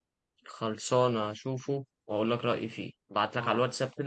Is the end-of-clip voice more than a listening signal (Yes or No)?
No